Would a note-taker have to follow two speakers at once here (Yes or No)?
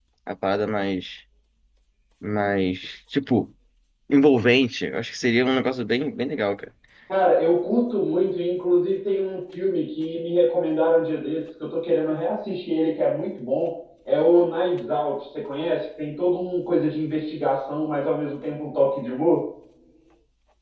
No